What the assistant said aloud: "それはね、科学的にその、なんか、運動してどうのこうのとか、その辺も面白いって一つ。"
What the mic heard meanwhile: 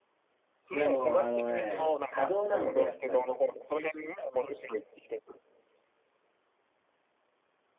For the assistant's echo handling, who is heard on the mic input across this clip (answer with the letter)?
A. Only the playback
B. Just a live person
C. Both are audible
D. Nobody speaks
C